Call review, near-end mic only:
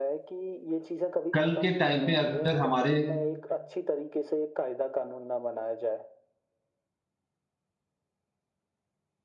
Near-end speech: present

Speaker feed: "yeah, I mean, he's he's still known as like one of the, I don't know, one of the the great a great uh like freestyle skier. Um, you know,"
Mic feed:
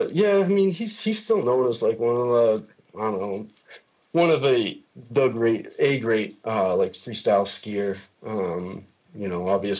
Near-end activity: none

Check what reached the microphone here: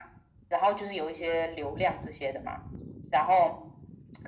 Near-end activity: none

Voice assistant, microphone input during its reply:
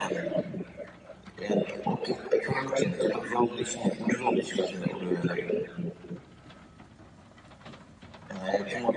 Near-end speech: none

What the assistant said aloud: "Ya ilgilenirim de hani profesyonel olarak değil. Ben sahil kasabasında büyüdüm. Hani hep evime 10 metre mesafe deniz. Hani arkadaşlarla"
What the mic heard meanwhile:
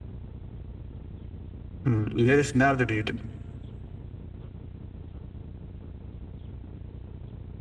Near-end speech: present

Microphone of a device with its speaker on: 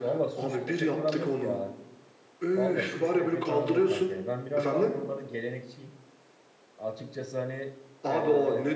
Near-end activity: present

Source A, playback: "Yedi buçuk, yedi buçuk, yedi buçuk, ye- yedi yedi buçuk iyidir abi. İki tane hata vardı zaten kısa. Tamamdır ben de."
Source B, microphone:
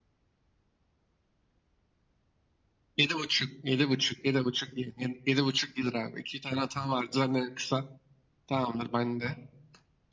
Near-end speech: none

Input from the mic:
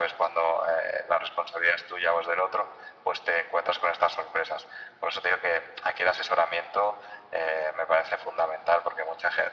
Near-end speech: none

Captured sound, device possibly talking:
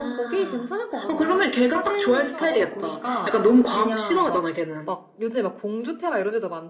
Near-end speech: present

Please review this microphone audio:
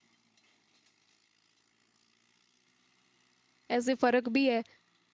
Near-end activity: present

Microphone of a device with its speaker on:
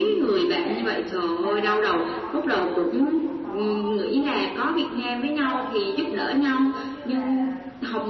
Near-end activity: present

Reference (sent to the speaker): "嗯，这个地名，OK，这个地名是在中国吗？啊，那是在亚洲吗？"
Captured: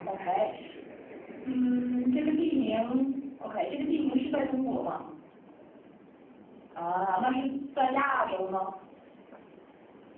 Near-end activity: none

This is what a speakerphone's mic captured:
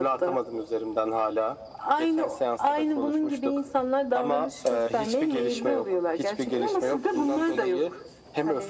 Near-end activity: none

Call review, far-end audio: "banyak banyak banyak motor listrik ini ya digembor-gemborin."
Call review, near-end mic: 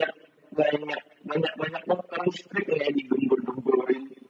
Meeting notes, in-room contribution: none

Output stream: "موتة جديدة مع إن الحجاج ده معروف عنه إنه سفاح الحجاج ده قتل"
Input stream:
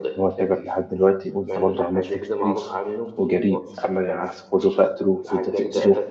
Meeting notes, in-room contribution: present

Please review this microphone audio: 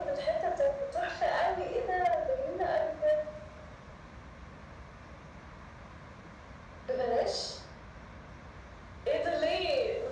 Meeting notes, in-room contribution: none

